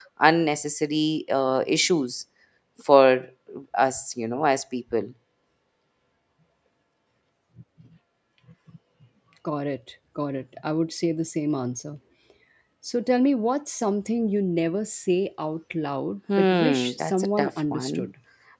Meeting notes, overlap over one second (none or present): present